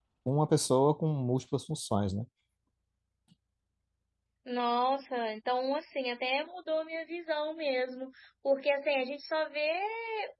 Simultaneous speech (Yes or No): No